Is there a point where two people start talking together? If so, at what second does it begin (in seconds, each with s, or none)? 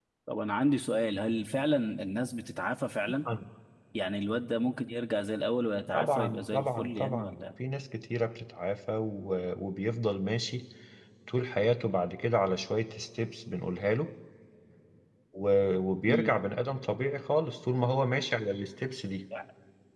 5.9 s